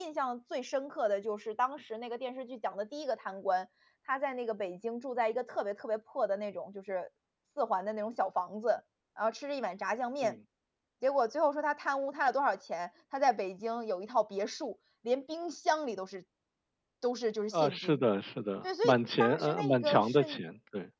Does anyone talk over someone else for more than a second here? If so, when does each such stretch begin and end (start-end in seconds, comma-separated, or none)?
18.8-20.4